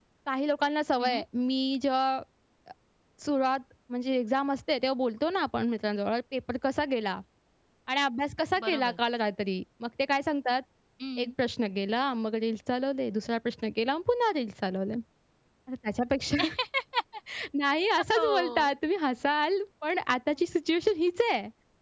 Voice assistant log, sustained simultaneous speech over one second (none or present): none